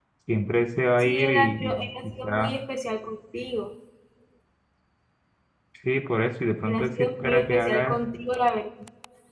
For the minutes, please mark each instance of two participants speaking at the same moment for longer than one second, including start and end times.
1.0-2.5, 6.7-7.9

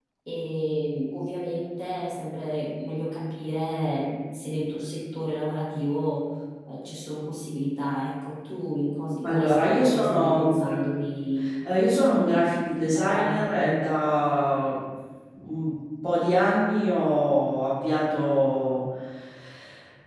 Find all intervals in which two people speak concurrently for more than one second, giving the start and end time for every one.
9.2-10.8, 12.1-13.5

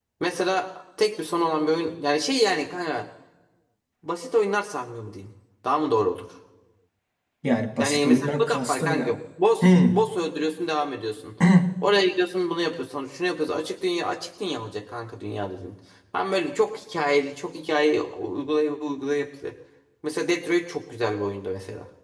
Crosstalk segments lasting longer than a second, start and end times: 7.8-9.2

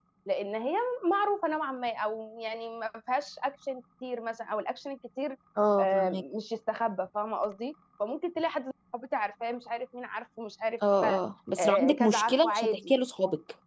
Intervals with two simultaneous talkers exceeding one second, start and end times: 11.6-12.9

